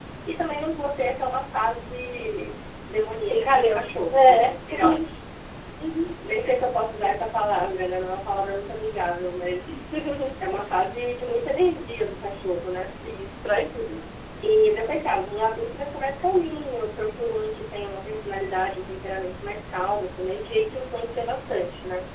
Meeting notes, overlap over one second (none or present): present